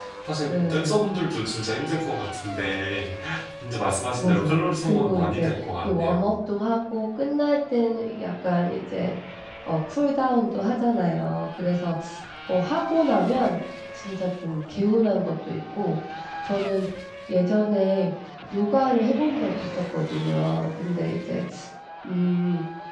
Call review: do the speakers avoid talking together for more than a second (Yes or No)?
No